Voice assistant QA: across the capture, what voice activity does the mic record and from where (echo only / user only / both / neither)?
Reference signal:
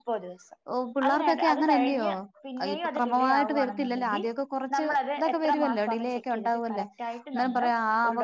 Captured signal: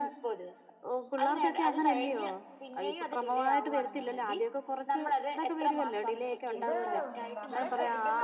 both